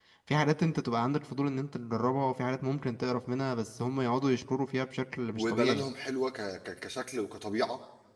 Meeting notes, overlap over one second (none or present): none